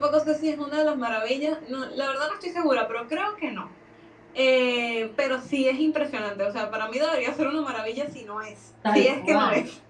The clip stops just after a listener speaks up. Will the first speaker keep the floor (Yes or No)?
No